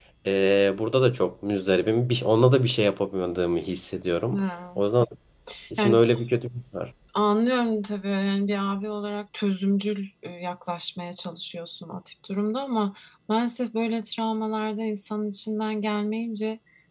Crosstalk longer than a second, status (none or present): none